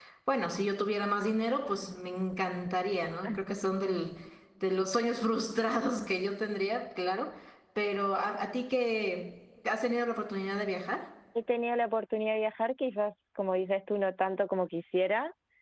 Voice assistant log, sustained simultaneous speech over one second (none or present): none